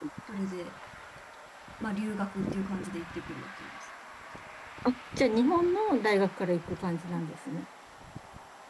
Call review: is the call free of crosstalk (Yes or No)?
Yes